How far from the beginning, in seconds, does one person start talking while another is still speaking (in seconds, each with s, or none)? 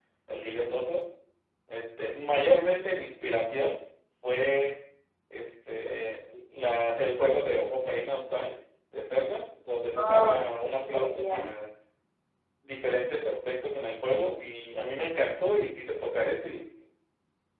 9.9 s